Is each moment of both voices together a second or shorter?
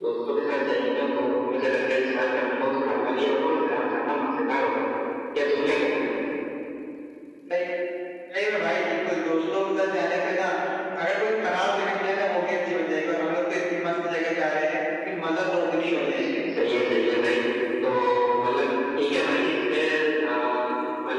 Yes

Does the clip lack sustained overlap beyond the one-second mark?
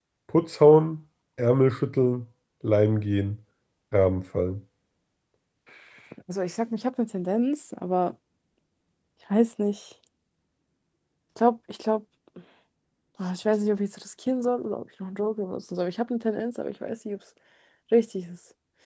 Yes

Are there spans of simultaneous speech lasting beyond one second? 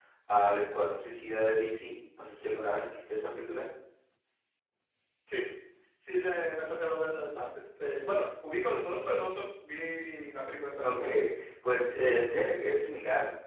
No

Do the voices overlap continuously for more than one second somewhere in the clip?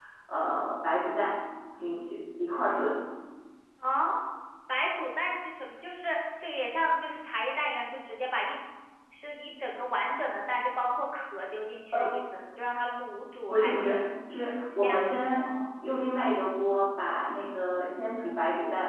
No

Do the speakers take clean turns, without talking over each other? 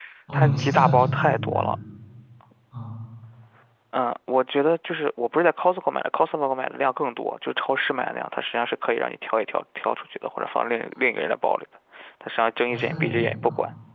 No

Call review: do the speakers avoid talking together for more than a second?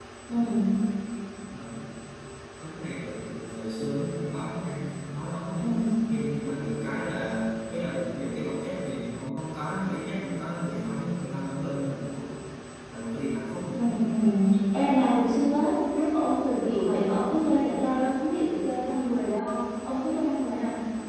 Yes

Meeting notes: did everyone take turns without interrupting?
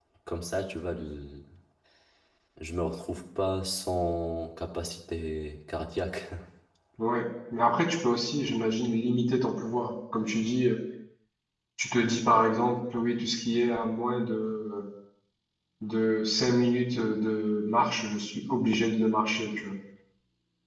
Yes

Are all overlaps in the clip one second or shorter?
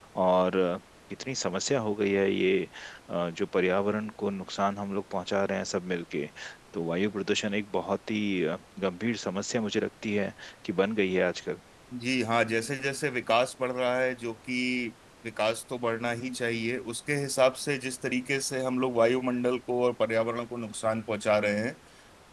Yes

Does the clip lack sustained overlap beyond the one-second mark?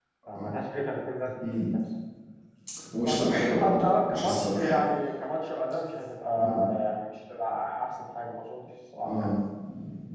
No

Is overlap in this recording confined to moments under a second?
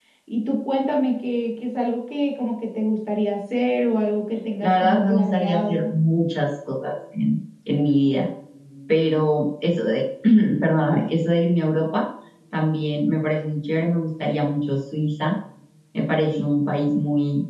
No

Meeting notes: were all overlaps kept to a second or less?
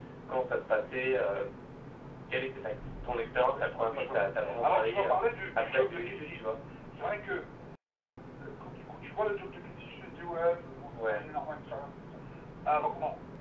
No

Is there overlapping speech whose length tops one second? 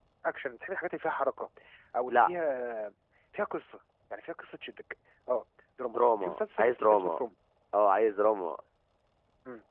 Yes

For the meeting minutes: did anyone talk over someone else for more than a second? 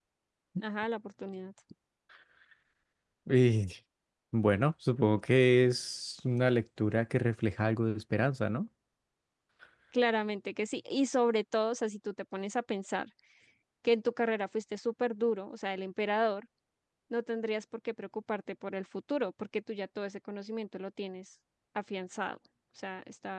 No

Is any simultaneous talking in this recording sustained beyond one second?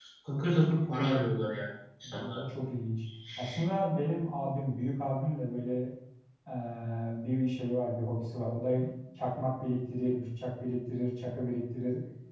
No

